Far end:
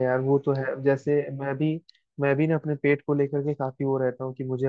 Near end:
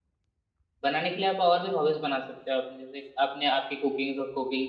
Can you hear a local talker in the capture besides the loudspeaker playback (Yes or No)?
Yes